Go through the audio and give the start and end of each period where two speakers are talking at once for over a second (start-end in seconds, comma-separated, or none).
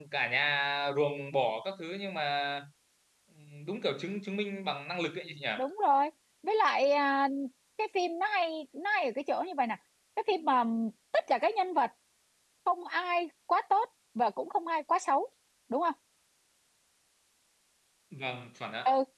none